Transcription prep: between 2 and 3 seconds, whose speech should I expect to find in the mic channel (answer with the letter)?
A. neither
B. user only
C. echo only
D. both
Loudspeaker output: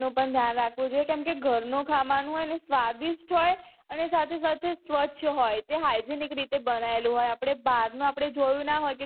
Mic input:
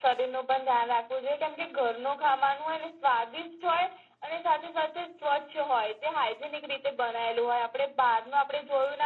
C